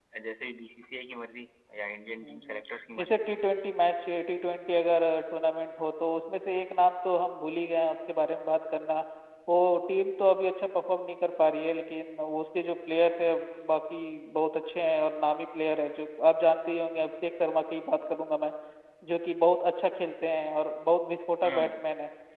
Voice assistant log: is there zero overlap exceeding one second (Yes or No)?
Yes